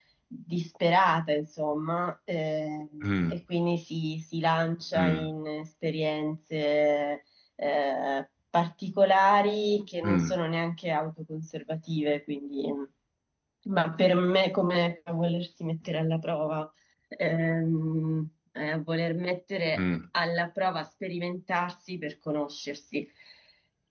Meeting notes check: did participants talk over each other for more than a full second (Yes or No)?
No